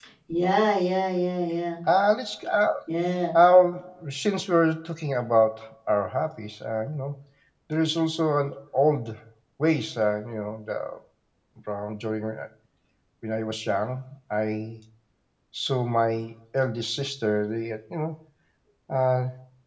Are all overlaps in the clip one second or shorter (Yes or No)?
Yes